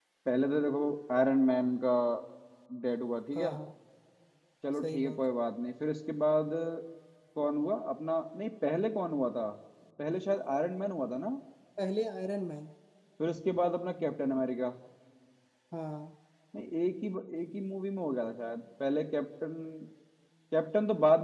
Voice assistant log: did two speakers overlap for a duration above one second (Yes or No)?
No